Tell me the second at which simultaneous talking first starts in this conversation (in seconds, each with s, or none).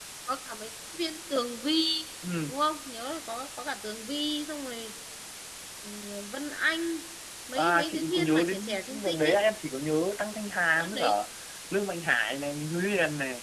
7.6 s